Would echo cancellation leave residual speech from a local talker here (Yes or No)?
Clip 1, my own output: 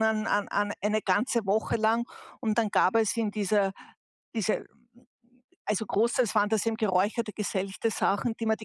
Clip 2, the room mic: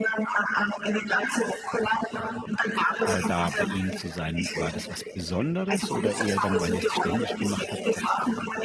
Yes